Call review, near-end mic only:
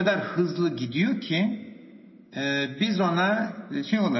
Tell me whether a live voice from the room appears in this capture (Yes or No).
No